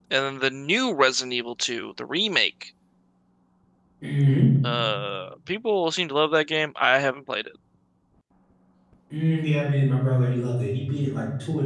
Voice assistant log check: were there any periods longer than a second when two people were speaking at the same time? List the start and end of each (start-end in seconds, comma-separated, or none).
none